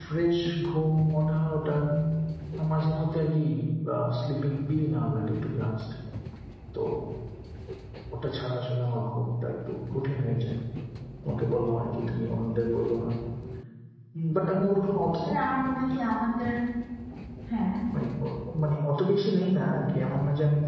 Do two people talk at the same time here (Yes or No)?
No